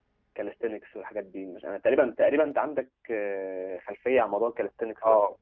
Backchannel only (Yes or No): No